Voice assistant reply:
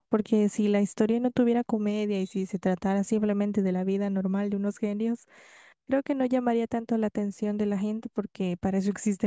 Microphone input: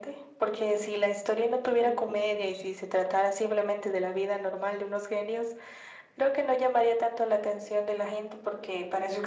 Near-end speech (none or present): present